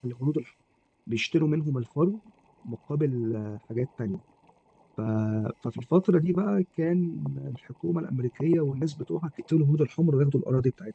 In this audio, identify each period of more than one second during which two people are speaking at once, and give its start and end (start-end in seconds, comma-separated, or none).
none